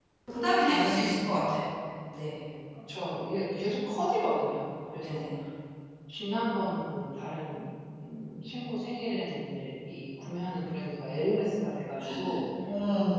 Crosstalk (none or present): present